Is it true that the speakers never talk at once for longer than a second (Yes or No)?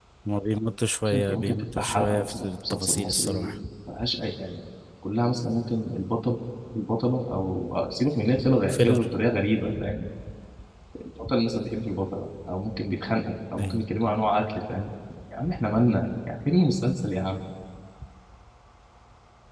No